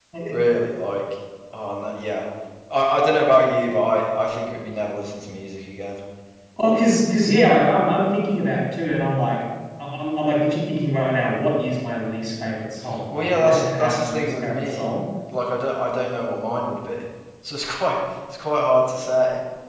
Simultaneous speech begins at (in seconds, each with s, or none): 13.1 s